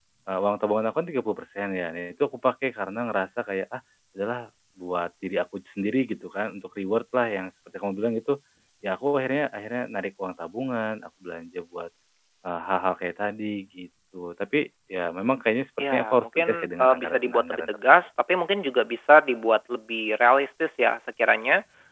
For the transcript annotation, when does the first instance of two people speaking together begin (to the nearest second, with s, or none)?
16 s